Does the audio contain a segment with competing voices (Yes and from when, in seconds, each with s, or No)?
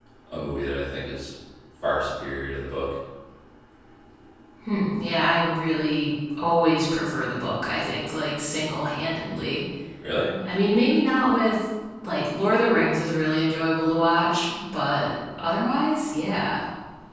No